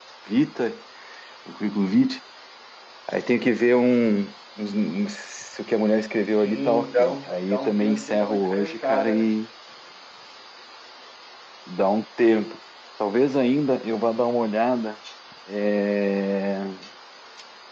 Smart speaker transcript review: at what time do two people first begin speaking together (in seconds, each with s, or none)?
6.2 s